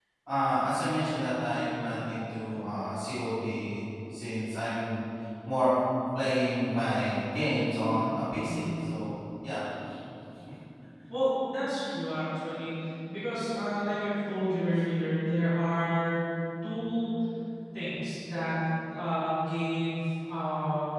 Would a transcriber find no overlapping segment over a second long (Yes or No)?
Yes